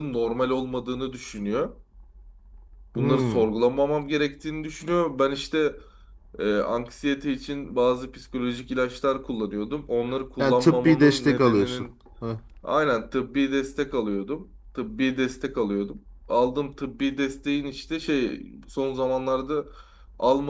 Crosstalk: present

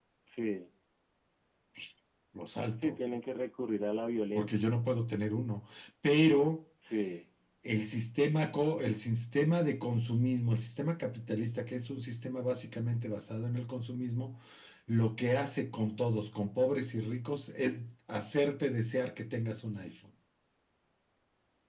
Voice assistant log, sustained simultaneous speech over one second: none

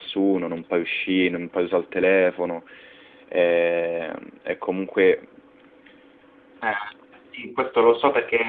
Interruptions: none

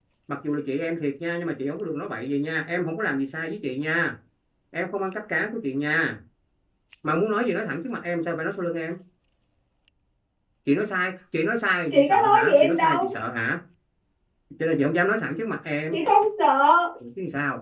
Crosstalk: present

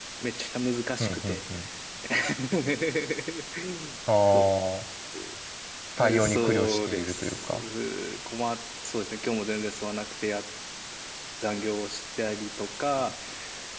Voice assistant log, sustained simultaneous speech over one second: present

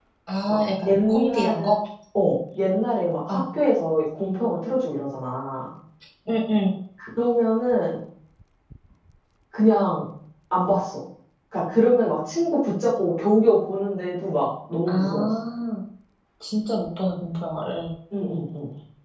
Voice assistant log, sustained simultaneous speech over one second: present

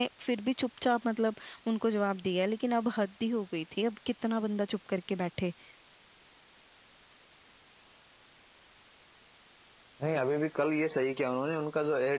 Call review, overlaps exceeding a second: none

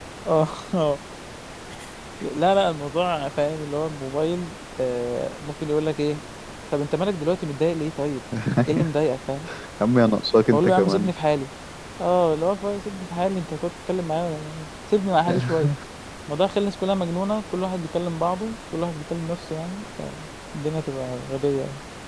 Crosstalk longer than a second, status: none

